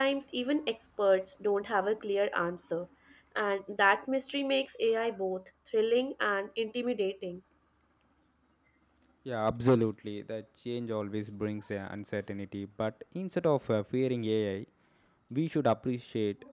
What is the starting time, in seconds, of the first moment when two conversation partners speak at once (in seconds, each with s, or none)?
none